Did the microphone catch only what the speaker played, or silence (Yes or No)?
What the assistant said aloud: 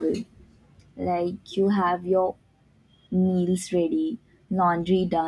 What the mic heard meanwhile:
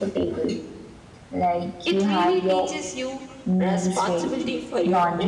No